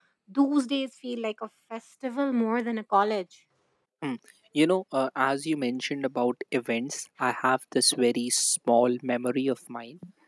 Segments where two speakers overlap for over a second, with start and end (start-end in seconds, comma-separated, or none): none